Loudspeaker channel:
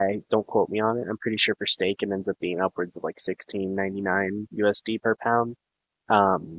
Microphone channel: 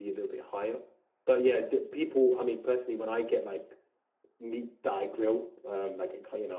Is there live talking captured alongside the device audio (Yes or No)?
Yes